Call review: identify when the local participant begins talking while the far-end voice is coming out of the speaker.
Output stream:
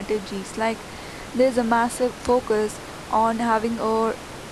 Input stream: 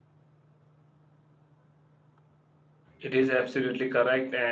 3.0 s

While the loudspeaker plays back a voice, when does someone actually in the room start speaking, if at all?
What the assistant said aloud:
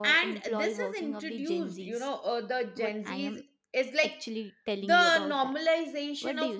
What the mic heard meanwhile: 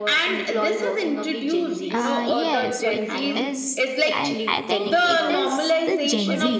1.9 s

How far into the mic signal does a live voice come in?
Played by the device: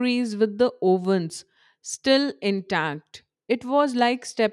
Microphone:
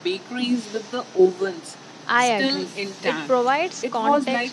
2.1 s

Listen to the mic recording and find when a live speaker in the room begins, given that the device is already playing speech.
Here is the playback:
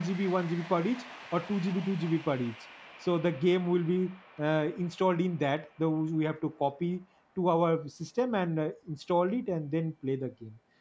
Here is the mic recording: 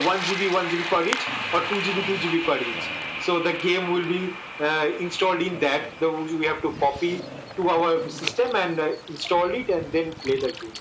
none

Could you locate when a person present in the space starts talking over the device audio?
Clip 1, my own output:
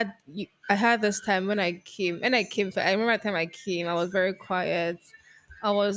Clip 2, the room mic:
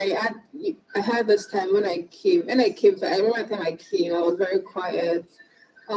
none

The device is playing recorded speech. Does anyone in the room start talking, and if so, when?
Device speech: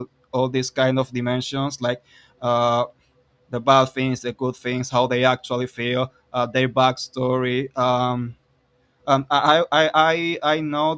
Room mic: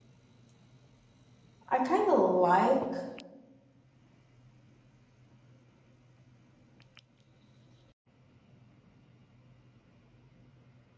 1.7 s

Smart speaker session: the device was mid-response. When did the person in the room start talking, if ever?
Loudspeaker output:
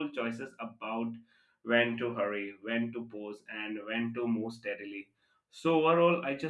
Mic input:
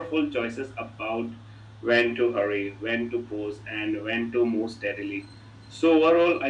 none

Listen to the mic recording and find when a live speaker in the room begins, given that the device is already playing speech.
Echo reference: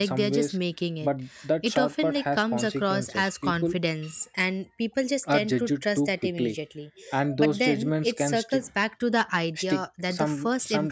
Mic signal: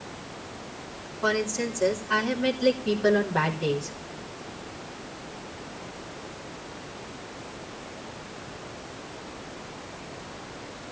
1.2 s

